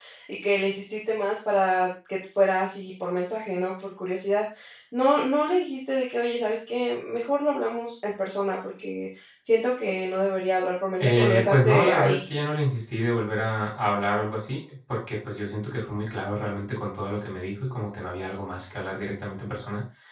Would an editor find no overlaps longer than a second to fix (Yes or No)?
No